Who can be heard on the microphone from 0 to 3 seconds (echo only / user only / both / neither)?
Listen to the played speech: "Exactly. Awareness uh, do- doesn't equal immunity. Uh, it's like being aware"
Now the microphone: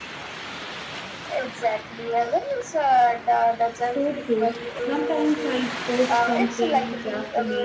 echo only